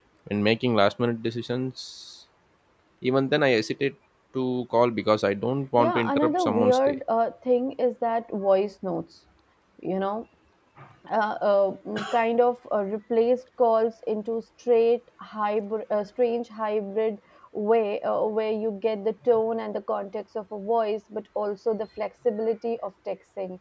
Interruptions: present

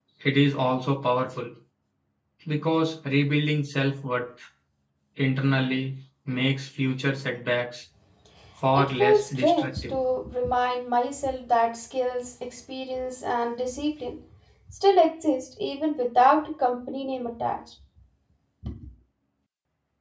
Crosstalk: present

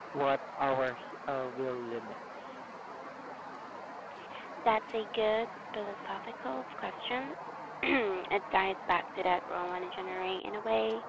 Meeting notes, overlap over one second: none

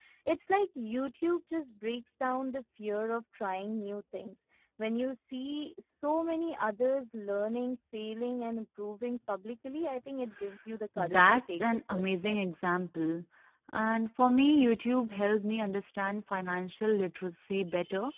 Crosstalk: present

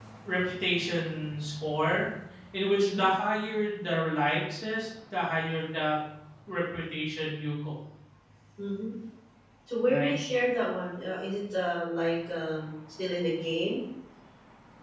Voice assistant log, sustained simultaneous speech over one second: none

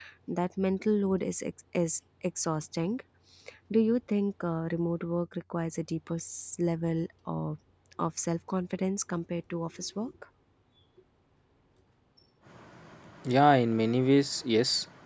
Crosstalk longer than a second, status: none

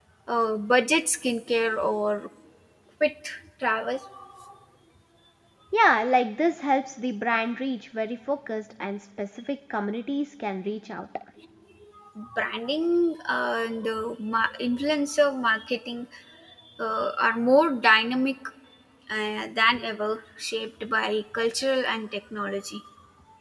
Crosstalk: none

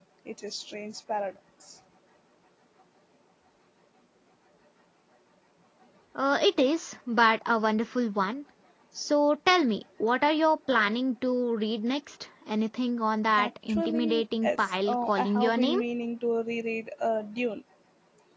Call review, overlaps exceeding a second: present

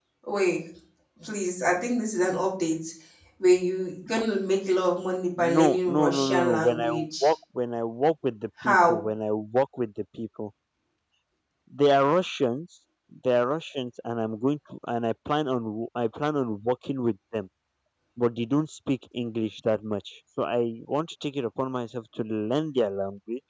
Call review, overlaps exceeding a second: present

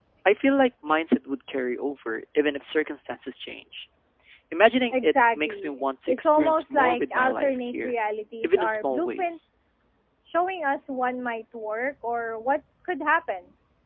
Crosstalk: present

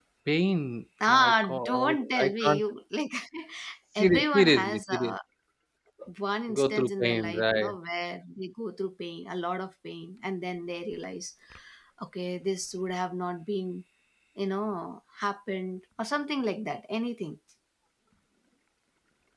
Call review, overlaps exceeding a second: present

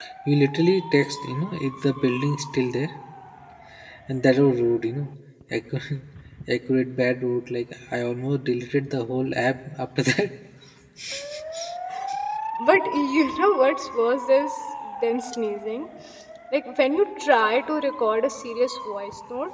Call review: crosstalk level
none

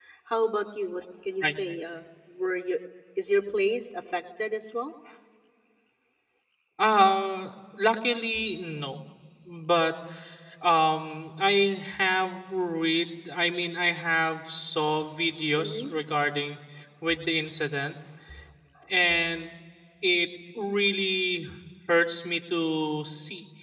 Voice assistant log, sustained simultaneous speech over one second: none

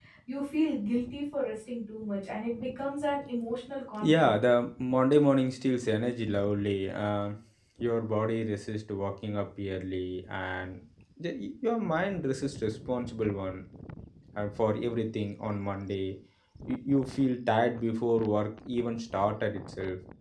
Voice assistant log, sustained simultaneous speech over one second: none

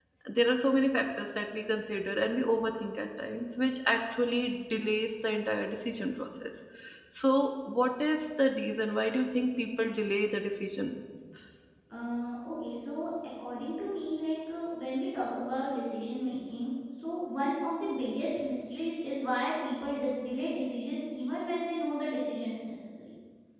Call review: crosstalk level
none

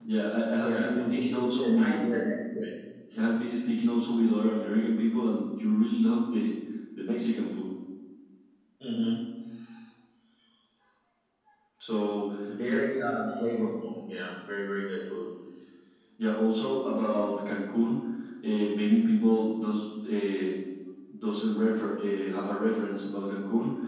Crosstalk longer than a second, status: present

